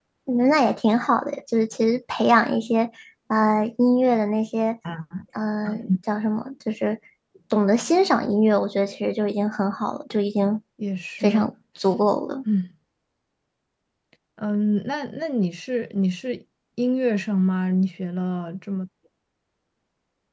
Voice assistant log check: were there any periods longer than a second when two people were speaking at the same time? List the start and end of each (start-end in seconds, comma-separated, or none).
none